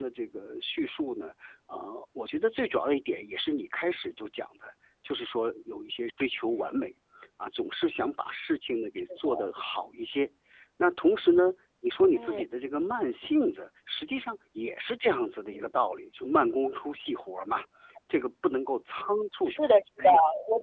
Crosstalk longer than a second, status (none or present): none